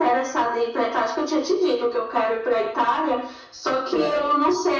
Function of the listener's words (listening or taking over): listening